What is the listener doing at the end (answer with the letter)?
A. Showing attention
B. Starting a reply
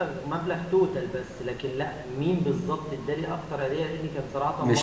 A